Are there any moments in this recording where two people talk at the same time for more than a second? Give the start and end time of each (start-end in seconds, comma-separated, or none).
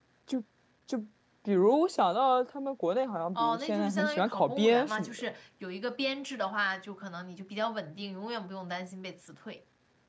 3.4-5.2